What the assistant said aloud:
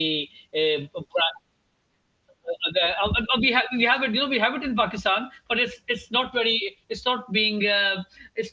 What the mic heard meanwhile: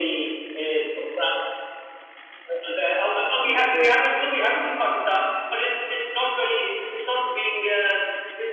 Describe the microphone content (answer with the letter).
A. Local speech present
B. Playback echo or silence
A